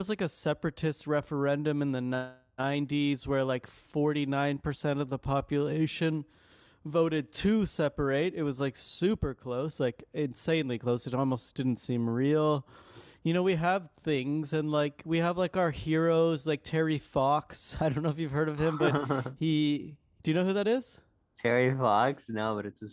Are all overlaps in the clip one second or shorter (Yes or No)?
Yes